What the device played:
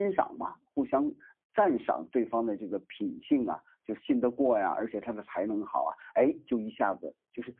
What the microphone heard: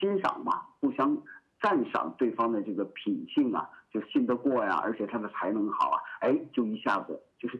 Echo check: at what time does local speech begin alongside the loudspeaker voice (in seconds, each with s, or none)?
none